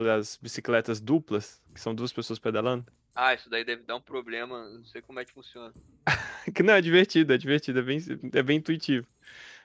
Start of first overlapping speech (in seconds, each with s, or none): none